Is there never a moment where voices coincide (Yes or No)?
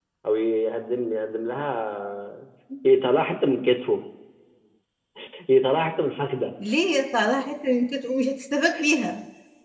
Yes